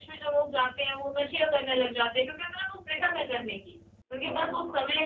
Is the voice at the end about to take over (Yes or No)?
No